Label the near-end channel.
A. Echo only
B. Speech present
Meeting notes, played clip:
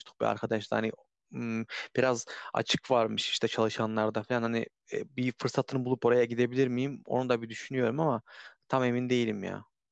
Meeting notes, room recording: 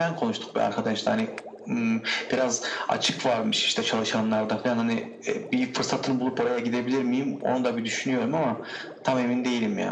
A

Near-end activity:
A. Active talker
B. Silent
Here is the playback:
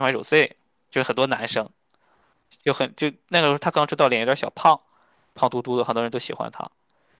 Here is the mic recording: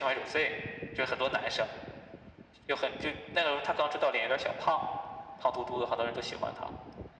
B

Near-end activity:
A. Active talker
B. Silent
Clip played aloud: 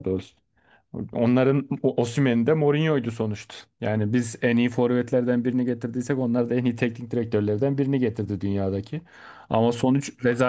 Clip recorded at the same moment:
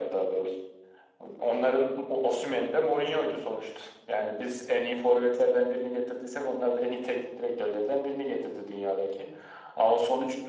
B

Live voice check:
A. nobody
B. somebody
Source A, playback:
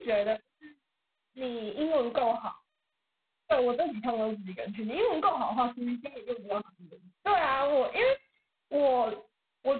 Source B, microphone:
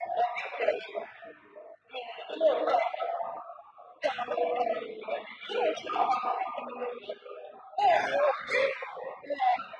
A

